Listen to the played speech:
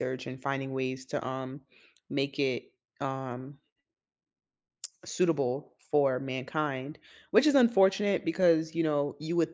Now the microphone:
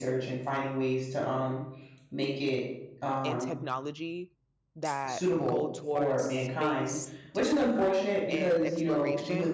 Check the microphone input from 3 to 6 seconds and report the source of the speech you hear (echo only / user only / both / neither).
both